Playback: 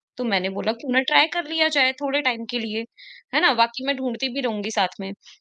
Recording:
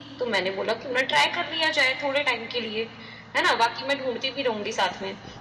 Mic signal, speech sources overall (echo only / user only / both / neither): echo only